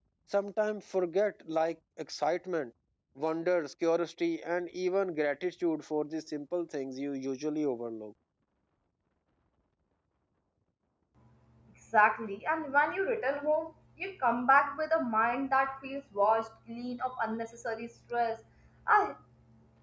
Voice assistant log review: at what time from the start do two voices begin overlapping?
none

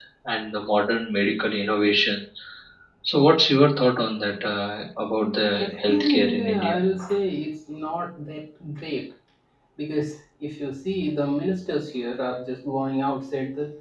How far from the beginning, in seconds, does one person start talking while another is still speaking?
5.4 s

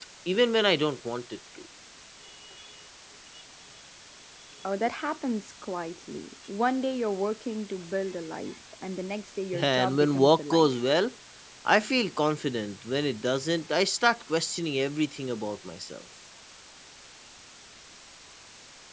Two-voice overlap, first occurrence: 9.5 s

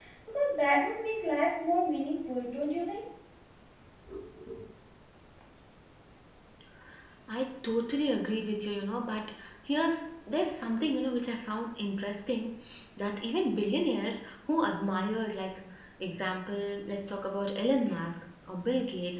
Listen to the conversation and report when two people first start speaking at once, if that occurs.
none

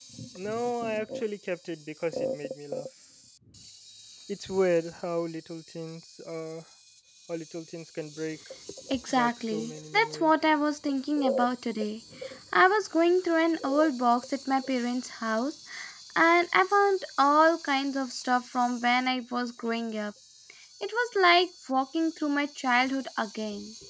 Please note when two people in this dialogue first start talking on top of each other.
9.1 s

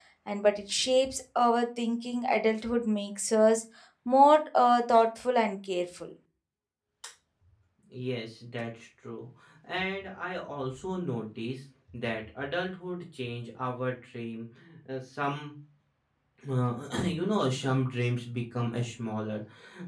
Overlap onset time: none

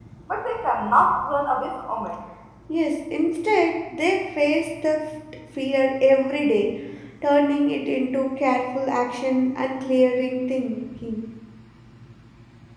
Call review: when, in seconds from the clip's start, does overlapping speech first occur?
none

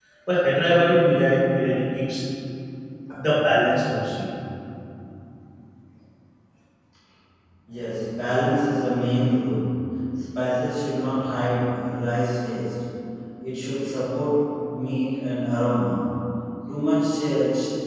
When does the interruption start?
none

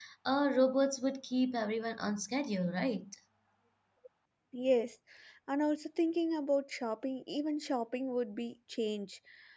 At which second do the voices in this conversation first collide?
none

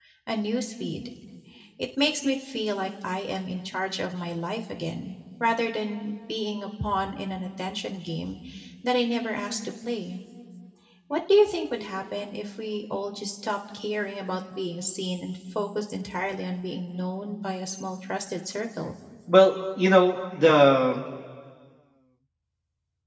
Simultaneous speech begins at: none

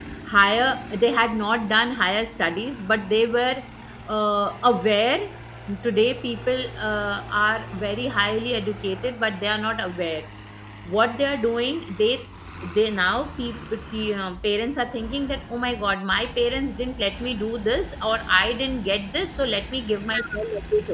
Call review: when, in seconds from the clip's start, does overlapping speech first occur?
none

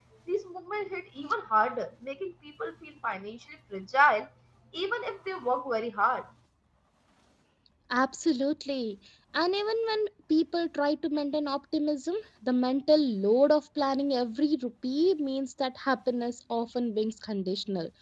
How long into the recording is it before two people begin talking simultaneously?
none

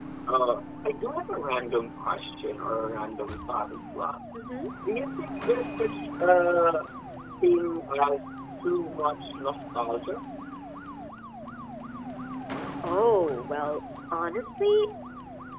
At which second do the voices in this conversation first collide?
none

